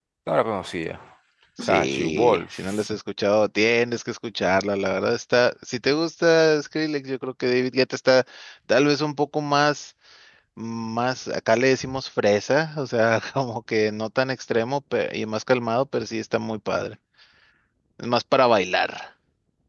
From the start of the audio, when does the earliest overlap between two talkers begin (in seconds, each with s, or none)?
1.6 s